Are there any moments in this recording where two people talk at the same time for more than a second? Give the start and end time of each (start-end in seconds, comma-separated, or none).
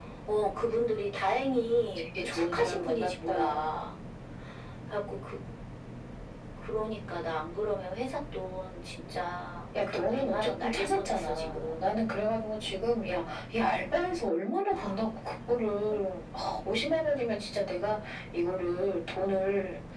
2.2-3.6, 9.9-12.0